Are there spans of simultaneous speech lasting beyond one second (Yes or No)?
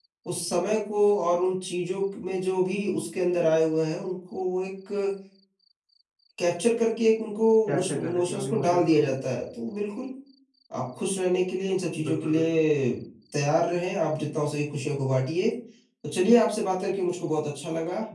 Yes